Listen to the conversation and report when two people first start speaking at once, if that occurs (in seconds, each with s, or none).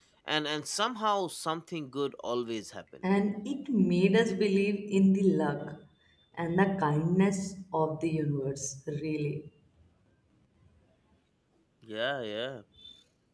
none